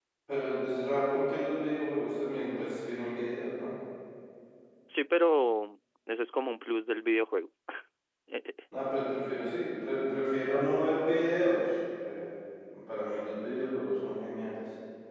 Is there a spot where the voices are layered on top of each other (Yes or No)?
No